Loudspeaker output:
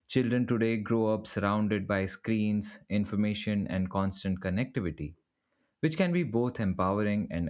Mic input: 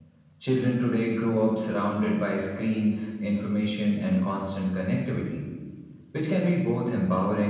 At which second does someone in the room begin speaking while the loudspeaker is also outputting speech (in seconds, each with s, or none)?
none